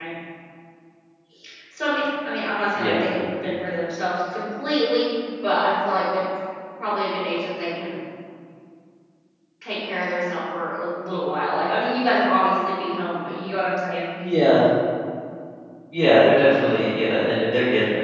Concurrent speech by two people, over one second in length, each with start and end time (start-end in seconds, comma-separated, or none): none